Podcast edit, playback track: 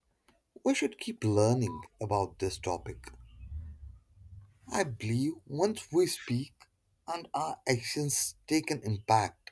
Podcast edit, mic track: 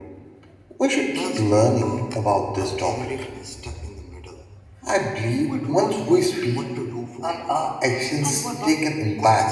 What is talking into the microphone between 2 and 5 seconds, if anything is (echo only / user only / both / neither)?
both